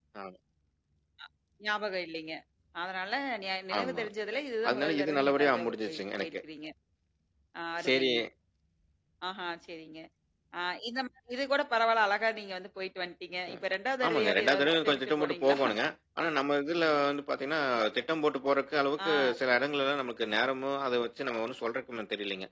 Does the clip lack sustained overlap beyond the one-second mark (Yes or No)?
No